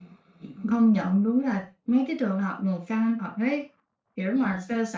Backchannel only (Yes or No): Yes